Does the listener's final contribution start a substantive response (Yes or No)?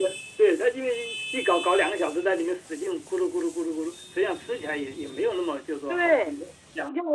Yes